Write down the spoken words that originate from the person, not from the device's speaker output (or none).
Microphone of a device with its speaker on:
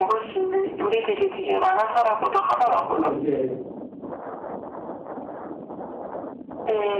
예. 그걸 이제